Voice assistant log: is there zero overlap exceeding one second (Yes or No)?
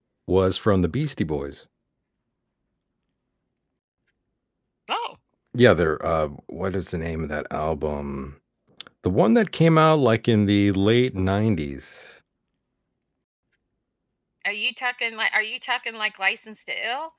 Yes